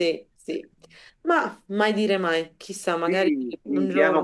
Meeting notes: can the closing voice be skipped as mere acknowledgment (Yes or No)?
No